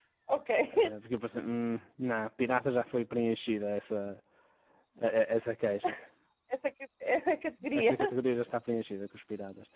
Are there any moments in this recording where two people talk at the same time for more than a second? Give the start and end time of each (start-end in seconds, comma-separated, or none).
none